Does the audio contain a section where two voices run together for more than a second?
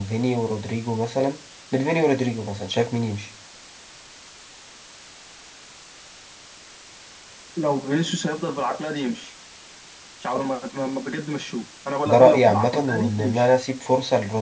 Yes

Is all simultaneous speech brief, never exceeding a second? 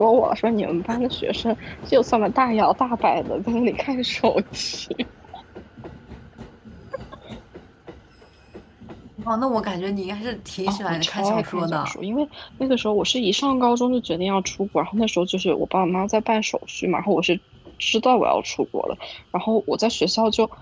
No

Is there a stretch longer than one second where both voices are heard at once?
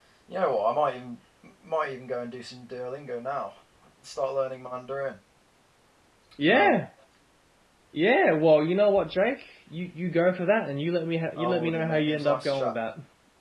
Yes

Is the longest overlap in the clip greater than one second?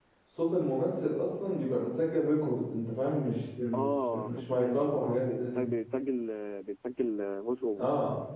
Yes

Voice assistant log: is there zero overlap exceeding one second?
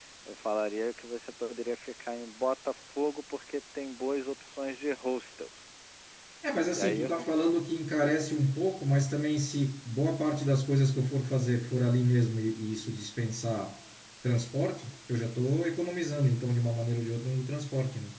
Yes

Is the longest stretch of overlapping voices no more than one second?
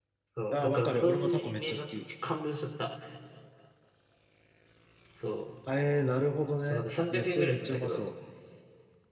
No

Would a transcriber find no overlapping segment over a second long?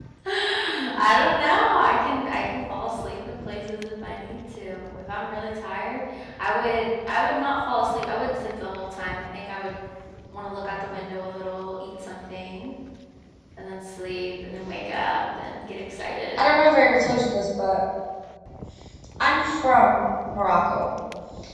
Yes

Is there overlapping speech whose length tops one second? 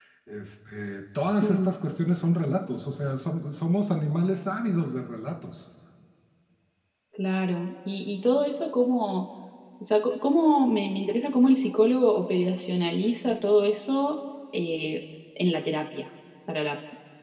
No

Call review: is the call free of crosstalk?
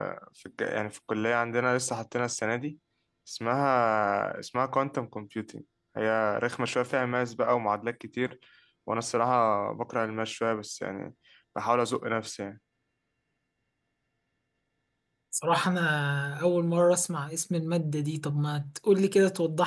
Yes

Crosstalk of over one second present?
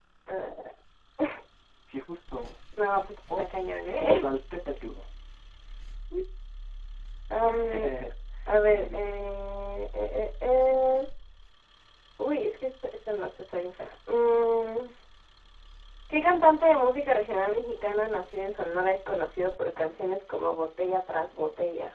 No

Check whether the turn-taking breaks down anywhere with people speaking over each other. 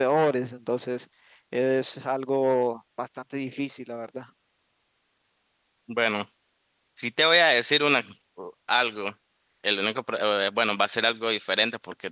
No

